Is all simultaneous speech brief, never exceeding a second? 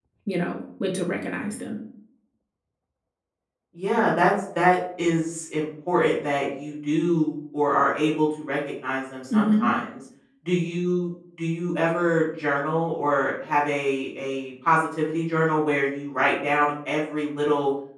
Yes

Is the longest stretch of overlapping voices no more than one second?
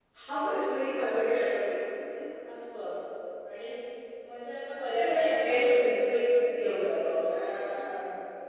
No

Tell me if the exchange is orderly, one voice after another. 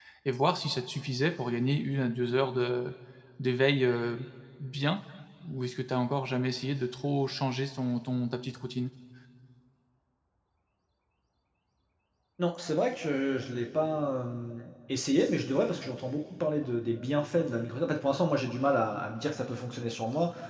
Yes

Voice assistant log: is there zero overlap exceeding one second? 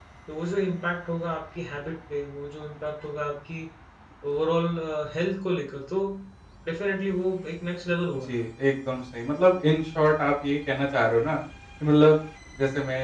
Yes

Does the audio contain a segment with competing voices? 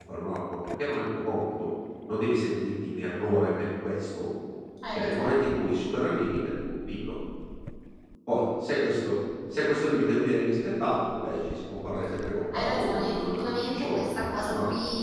Yes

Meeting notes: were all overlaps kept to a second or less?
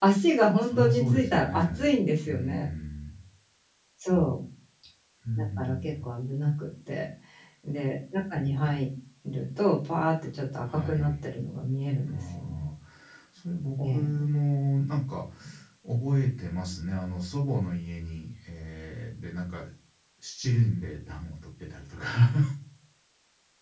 No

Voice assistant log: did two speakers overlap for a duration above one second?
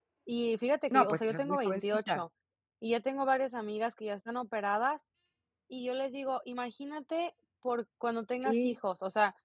Yes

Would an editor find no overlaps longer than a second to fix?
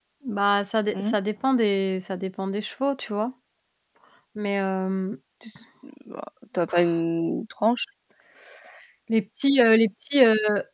Yes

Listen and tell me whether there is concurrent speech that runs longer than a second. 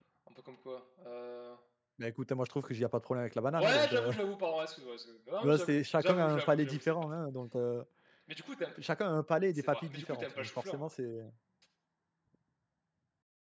Yes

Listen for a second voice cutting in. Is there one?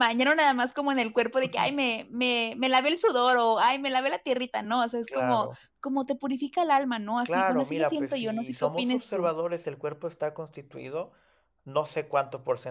Yes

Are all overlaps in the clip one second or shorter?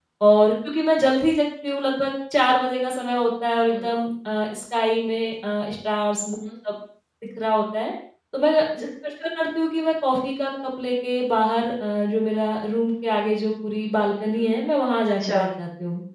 Yes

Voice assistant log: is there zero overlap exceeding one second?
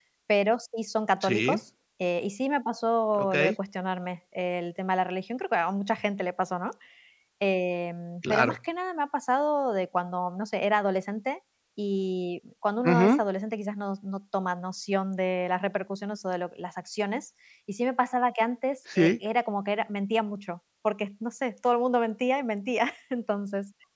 Yes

